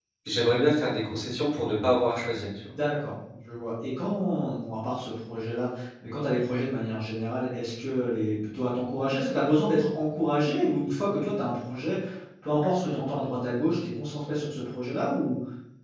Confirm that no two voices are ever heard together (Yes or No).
Yes